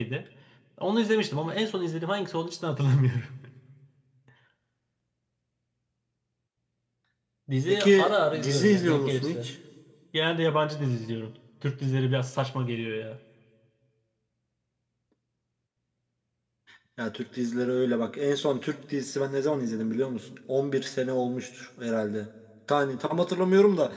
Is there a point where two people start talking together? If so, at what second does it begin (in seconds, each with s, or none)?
7.7 s